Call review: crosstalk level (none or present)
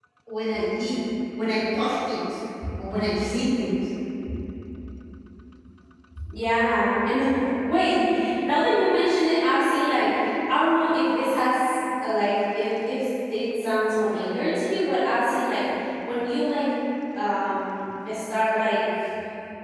none